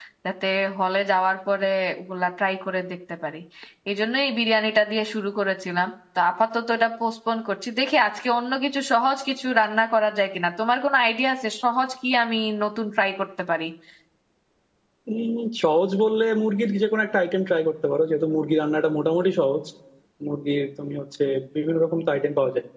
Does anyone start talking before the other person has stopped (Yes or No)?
No